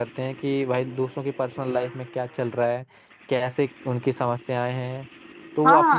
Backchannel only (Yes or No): No